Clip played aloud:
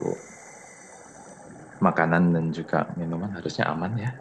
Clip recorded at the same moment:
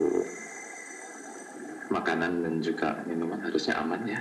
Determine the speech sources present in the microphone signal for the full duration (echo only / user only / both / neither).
echo only